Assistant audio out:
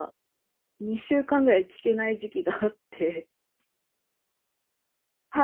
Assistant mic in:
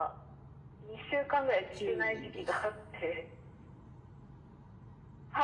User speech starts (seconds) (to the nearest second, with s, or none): 2 s